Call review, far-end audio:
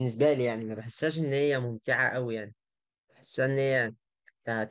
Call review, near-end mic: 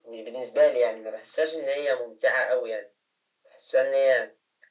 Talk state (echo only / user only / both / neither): echo only